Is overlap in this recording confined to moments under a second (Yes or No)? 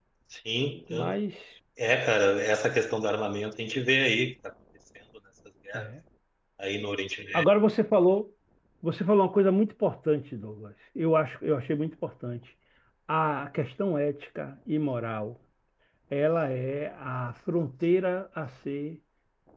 Yes